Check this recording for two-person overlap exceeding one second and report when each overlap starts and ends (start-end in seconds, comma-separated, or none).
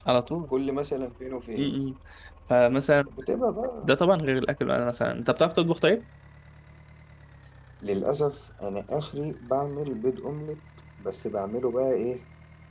none